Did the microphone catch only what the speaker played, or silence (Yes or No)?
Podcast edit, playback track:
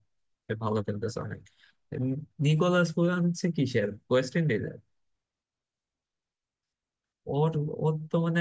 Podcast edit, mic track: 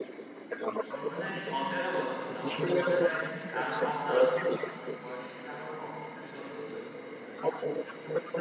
No